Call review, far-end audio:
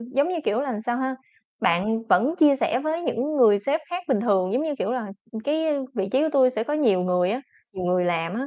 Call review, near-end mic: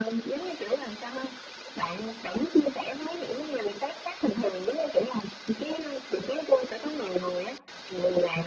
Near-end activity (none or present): none